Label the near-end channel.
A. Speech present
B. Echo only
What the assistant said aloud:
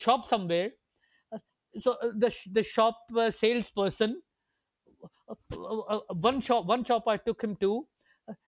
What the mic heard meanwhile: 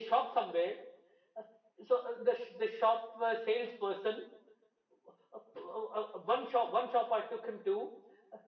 B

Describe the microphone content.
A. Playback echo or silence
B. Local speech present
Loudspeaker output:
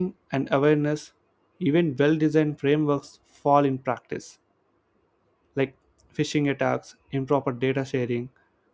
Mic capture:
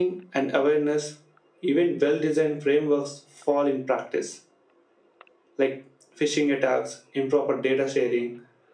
A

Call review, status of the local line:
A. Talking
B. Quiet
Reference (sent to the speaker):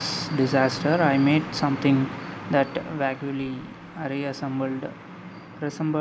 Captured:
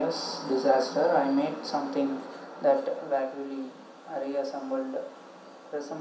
B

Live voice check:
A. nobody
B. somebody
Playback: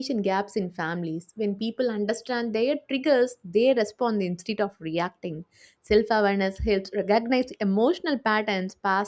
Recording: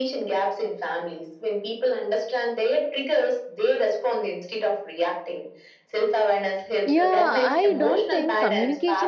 B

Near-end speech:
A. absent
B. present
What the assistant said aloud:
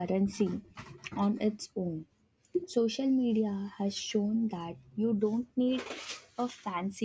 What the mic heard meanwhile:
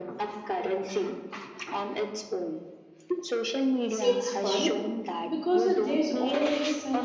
B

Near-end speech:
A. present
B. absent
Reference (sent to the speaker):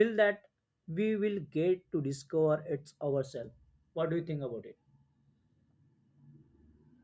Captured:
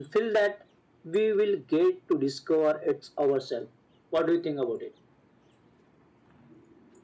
B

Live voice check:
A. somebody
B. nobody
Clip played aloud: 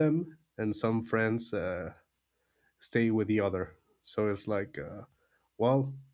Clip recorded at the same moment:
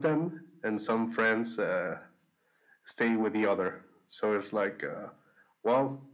B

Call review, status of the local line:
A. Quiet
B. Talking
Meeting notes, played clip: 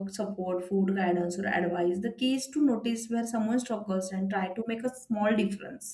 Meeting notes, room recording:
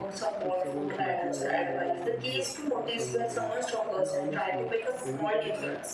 B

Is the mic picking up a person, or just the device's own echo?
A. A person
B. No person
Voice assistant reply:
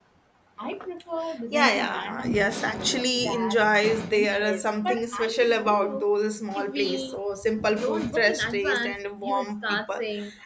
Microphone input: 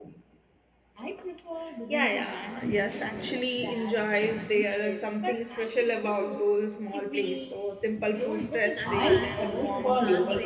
A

